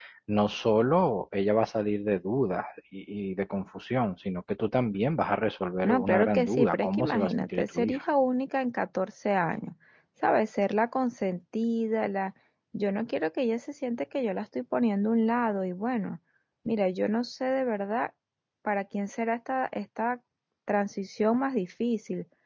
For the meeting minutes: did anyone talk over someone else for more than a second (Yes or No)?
Yes